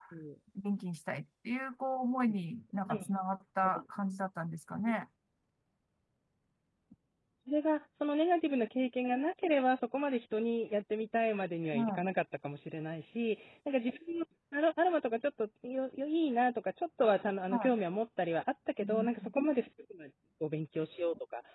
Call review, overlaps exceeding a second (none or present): none